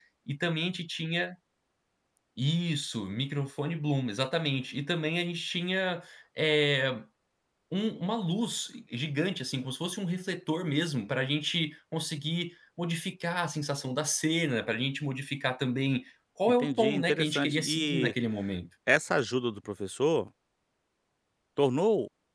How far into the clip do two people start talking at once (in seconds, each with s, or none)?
16.5 s